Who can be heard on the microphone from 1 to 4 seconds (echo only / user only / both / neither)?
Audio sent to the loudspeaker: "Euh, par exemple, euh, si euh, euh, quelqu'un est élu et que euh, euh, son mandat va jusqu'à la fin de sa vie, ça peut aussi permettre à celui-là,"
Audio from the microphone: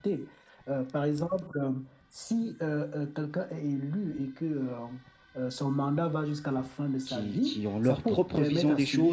echo only